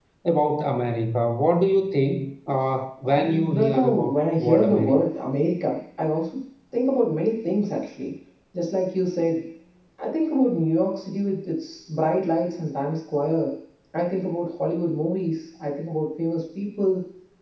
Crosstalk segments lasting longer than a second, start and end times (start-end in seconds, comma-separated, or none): 3.0-5.1